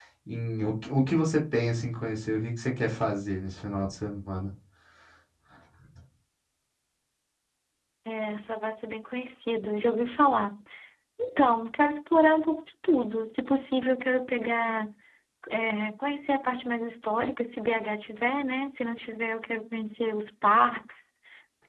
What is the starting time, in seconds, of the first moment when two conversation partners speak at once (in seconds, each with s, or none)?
none